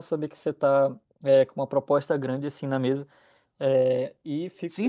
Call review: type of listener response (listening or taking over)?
taking over